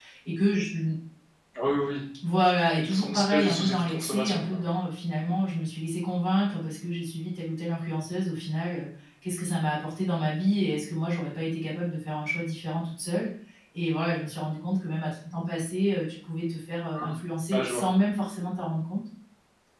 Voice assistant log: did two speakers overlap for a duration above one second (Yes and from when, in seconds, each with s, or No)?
Yes, from 2.8 s